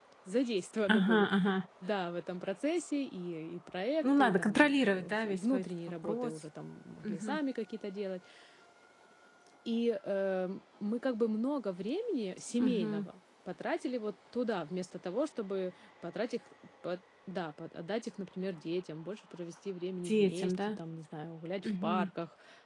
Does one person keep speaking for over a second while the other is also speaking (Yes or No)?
Yes